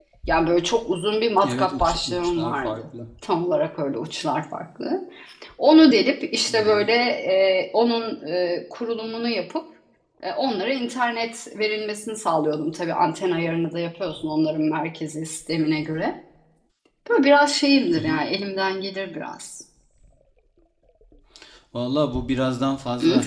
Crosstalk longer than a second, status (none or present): present